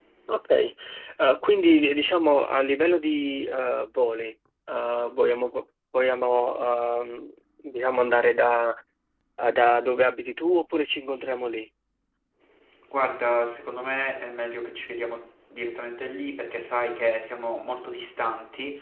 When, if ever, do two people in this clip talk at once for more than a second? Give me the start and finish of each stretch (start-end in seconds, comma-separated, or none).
none